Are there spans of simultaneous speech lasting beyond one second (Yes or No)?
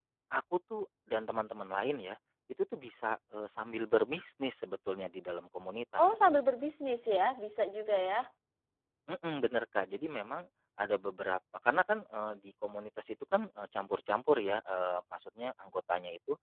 No